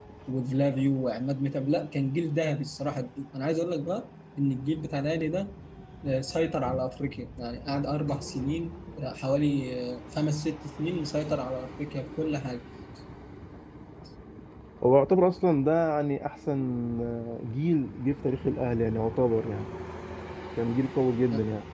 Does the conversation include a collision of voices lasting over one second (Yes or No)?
No